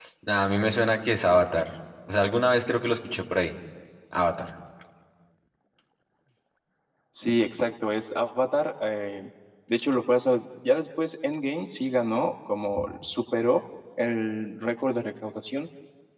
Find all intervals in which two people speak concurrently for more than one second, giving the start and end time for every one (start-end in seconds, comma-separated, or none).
none